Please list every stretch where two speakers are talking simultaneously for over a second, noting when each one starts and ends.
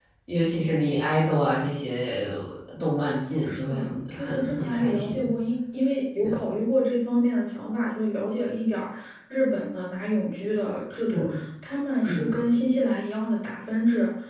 3.5-5.2

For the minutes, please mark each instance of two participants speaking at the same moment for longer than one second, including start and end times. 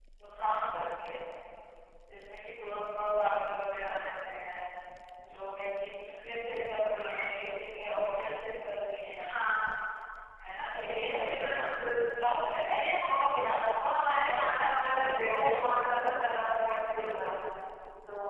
14.3-15.6

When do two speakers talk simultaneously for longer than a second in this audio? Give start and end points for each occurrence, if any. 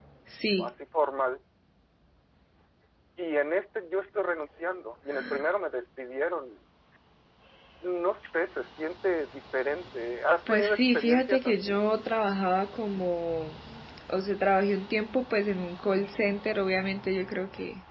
10.5-11.8

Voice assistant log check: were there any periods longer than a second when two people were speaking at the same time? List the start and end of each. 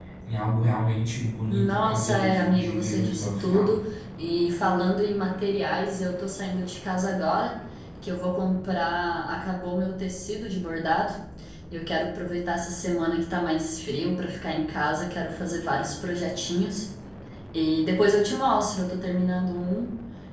1.5-3.7

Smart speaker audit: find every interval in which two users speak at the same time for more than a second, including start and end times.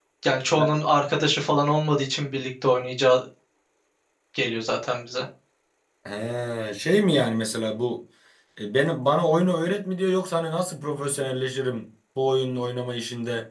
none

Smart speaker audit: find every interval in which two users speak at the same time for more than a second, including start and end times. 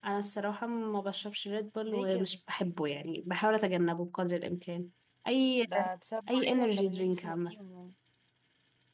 6.3-7.5

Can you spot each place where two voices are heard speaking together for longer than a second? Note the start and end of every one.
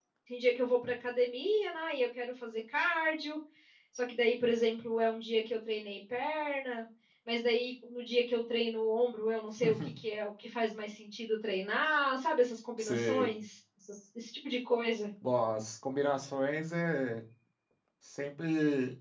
none

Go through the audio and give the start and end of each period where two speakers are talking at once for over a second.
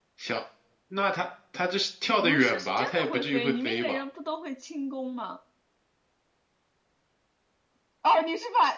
2.2-4.0

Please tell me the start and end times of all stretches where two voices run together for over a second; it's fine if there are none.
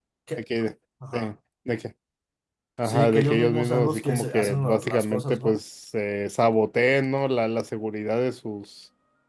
2.9-5.5

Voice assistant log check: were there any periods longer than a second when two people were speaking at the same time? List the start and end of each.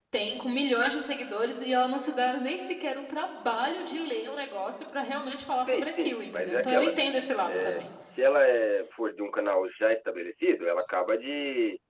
5.7-7.8

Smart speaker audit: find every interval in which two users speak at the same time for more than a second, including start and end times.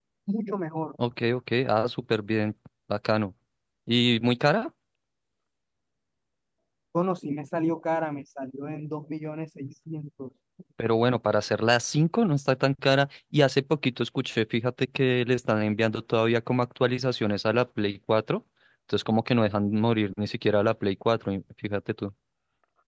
none

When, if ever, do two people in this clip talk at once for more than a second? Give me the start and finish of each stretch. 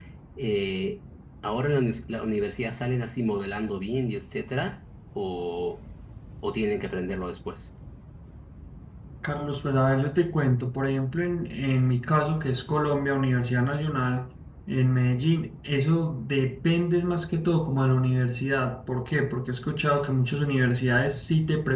none

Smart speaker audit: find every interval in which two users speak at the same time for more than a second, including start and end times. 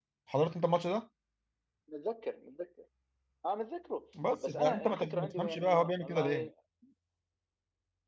4.4-6.5

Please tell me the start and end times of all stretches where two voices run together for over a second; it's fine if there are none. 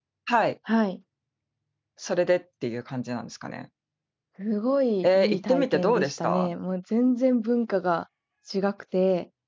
5.0-6.5

